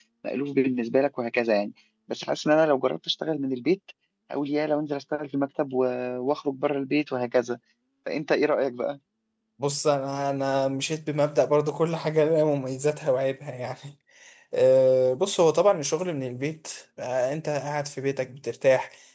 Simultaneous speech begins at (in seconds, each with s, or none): none